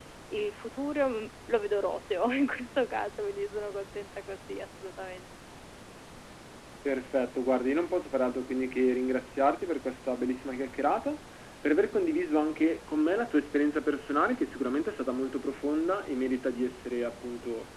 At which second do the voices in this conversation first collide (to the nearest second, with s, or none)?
none